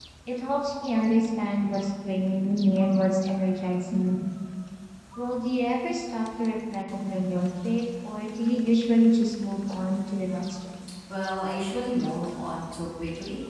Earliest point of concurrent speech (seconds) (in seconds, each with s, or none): none